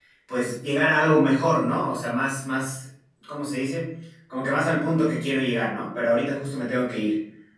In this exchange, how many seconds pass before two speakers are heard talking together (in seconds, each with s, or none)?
none